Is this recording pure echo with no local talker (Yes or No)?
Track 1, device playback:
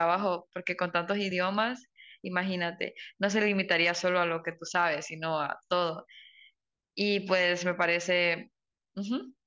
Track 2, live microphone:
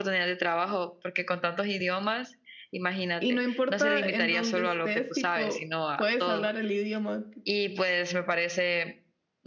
No